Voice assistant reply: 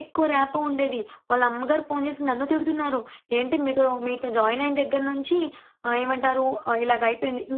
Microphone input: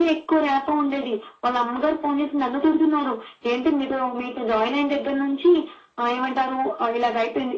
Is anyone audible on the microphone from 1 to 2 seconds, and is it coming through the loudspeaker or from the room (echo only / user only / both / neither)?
echo only